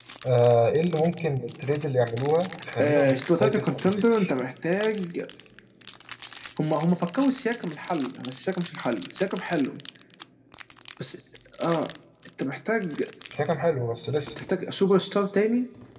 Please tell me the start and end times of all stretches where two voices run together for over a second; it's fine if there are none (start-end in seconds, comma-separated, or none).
2.8-4.3